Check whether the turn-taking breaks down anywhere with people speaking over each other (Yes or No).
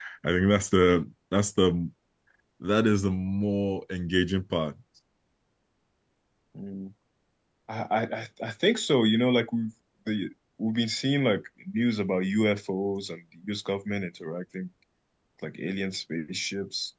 No